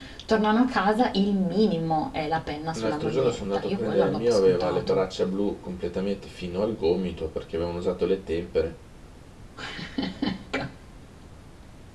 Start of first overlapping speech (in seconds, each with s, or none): 2.8 s